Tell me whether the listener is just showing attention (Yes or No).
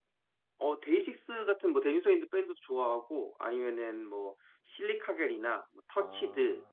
Yes